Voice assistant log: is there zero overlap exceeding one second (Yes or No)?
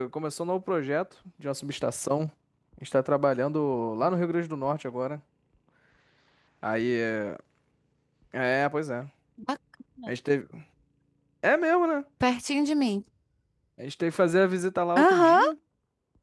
Yes